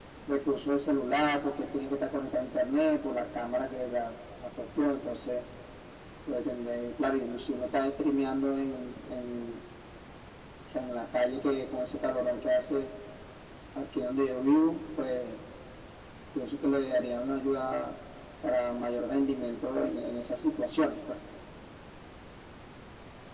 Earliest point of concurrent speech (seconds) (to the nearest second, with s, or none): none